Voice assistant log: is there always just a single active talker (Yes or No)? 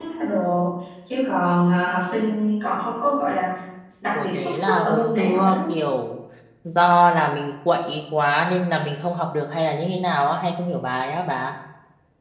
No